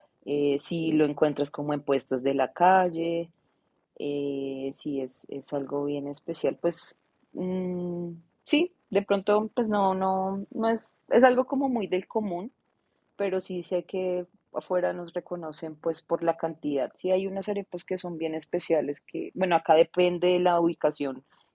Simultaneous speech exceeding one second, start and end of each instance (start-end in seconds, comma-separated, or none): none